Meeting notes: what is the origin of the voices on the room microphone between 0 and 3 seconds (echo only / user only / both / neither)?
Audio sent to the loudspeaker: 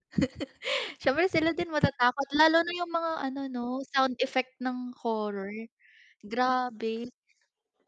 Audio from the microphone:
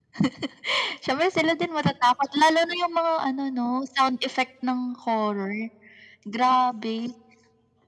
echo only